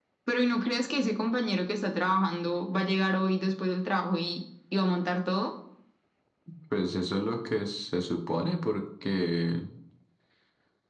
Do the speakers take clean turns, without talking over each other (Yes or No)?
Yes